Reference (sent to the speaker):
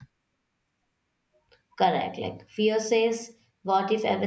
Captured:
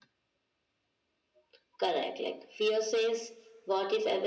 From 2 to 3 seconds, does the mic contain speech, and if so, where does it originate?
echo only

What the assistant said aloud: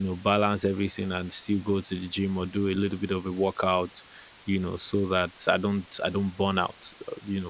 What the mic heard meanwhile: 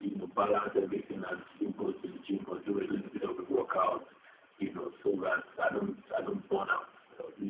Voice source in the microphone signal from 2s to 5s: echo only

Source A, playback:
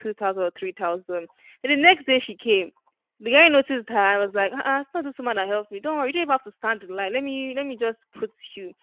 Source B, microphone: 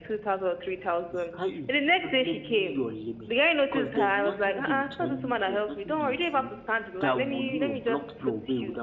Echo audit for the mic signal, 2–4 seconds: both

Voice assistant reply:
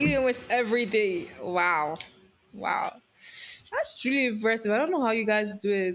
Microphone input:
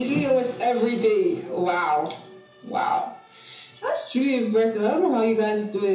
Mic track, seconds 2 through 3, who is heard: echo only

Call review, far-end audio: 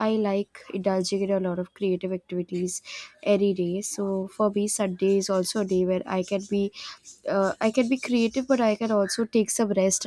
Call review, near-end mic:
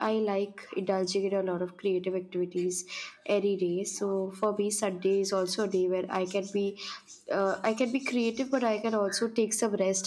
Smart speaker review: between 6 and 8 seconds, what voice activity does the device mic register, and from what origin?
echo only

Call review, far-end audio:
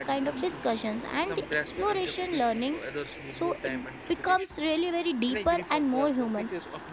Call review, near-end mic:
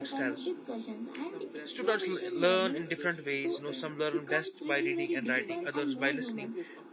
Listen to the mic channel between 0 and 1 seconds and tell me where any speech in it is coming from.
both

